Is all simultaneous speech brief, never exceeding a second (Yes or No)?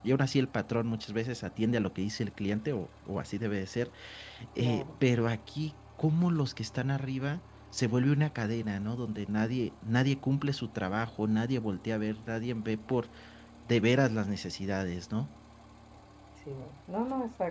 Yes